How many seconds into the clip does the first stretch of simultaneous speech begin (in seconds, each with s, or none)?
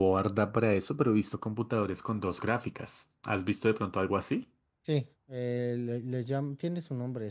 none